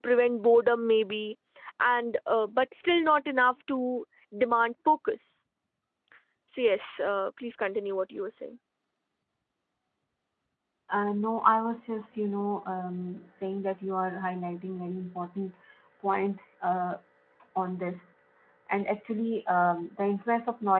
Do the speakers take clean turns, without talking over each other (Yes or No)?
Yes